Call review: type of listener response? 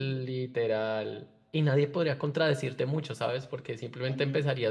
listening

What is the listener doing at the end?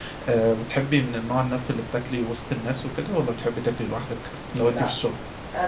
taking over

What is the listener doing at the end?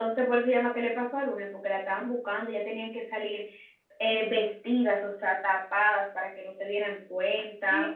taking over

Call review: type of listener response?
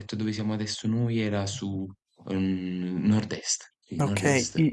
taking over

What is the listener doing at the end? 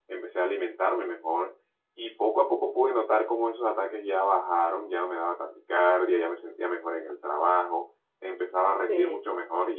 listening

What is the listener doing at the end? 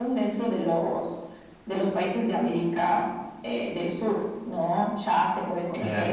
listening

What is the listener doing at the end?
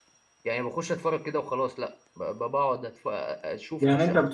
taking over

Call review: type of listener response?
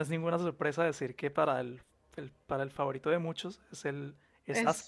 taking over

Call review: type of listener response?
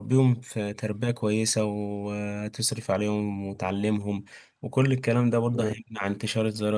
listening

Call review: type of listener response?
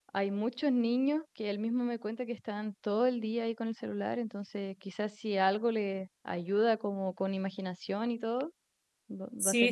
taking over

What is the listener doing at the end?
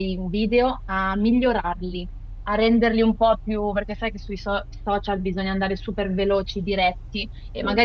listening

